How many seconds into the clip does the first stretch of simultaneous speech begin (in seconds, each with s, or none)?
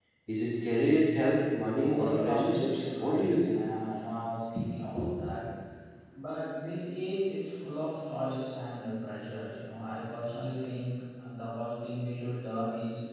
1.9 s